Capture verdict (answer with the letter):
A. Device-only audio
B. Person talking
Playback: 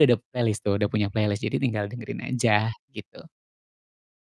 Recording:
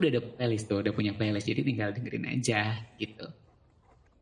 A